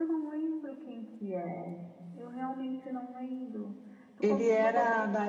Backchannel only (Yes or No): No